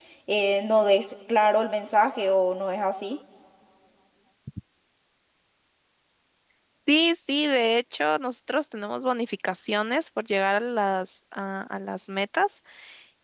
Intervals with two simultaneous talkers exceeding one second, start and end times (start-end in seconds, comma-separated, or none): none